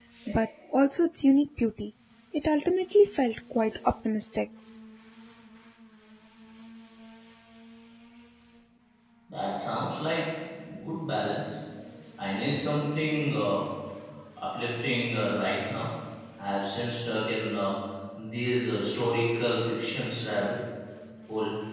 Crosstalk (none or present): none